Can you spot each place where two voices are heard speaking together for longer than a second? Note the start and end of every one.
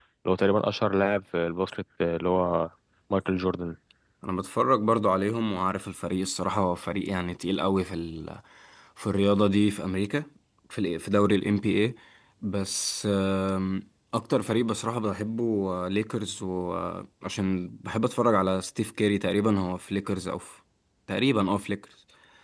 none

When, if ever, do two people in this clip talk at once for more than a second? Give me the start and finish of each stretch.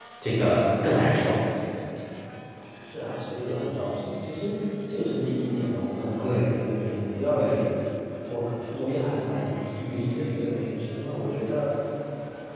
none

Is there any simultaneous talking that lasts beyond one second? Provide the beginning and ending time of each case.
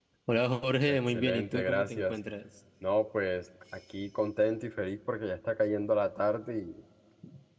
0.9-2.1

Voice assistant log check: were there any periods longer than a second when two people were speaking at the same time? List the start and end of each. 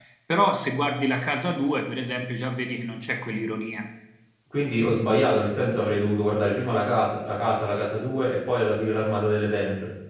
none

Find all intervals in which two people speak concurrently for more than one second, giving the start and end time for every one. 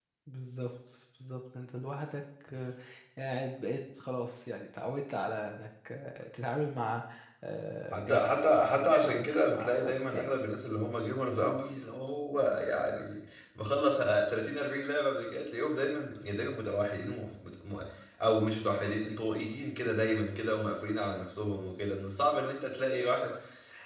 8.0-10.4

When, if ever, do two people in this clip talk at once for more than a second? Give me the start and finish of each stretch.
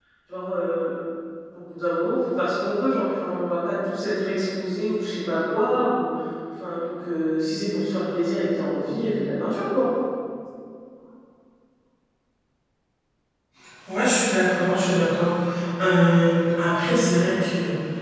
none

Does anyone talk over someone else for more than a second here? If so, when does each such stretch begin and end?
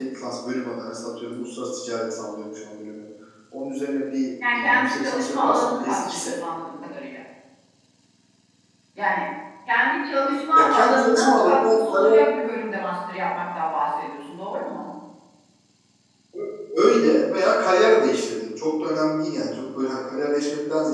4.6-6.3, 10.6-12.2

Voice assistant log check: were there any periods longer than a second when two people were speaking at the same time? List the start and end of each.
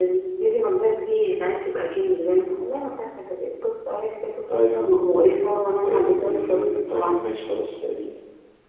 5.8-7.1

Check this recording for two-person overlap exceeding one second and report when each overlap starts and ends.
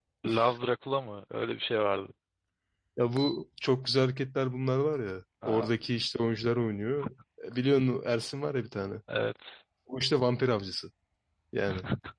none

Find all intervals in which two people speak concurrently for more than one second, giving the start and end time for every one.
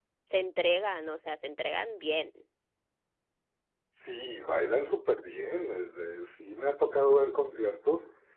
none

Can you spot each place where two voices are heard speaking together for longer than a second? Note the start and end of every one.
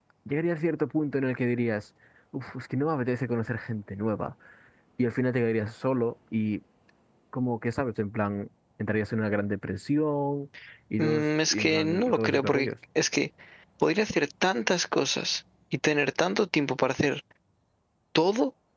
11.0-12.7

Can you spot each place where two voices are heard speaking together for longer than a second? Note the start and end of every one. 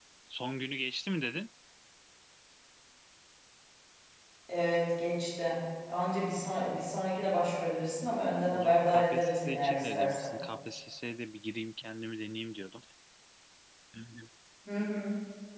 8.5-10.4

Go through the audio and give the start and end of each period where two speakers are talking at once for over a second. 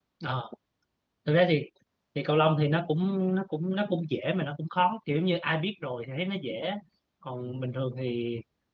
none

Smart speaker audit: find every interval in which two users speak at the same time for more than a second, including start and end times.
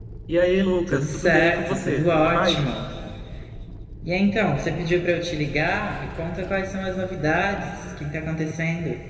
0.9-2.6

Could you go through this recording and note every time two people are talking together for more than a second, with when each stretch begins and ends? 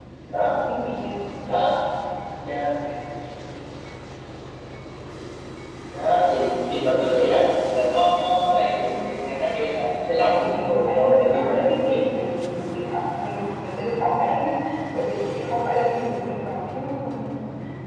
10.2-12.0

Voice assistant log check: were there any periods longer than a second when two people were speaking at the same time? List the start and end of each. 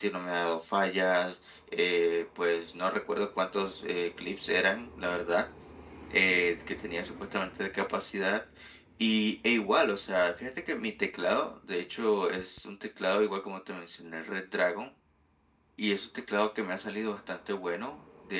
none

